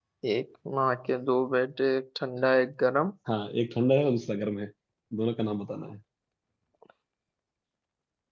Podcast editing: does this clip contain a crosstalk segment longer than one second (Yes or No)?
No